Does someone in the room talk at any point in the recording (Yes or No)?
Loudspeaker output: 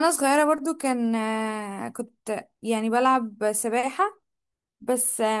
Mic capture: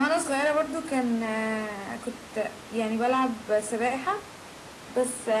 No